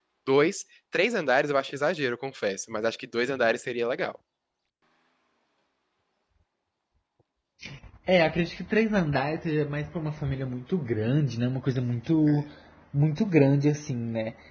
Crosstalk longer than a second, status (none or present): none